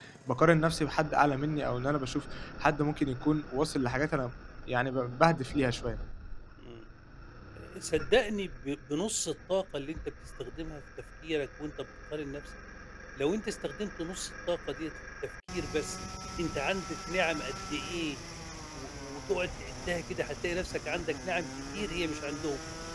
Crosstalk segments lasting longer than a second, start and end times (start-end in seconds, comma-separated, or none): none